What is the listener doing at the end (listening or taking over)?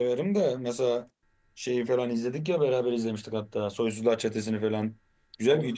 listening